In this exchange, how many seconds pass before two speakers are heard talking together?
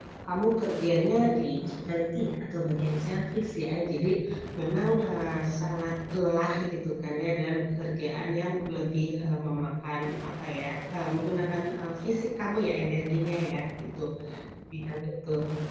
none

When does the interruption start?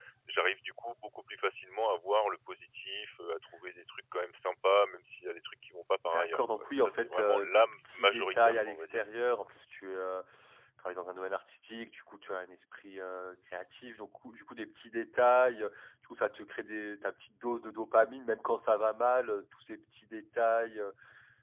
6.0 s

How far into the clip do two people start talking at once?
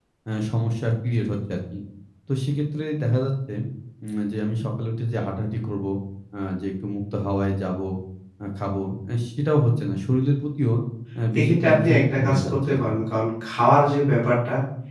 11.4 s

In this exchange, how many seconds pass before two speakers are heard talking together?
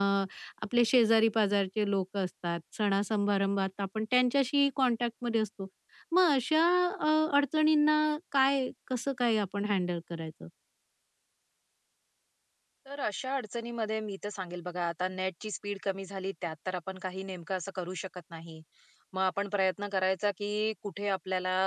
none

